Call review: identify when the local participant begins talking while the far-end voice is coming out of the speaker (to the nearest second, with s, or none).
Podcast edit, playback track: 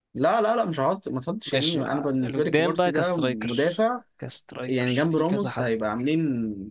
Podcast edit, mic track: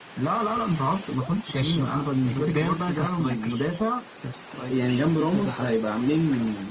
none